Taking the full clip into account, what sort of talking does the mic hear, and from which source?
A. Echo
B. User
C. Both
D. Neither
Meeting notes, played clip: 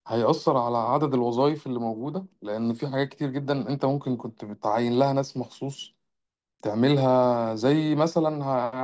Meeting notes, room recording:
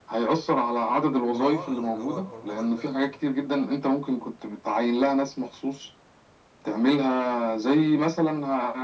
C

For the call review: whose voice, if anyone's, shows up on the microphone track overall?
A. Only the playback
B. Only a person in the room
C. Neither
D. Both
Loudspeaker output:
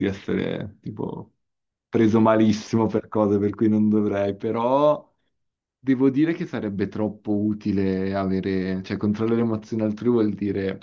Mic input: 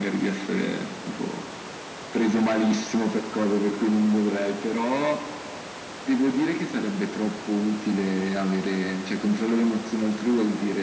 A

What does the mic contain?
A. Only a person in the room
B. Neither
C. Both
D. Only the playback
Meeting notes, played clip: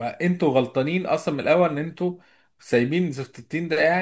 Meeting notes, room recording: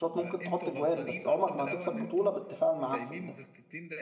C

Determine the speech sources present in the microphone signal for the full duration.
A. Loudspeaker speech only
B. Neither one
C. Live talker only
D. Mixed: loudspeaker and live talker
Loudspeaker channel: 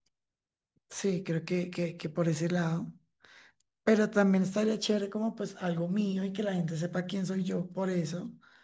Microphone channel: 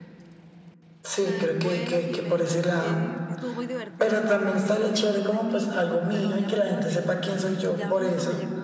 D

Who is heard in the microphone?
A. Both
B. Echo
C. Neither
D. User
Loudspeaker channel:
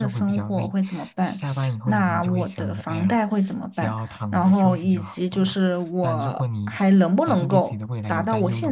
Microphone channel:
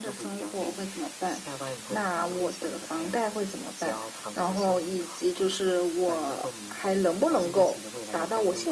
B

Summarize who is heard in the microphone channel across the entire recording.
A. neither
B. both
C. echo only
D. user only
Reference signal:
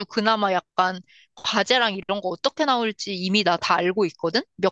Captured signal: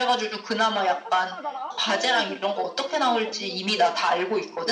B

